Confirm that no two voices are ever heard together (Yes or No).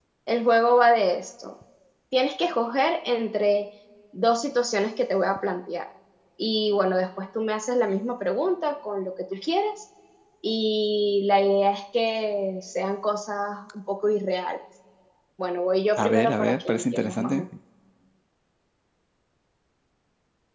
No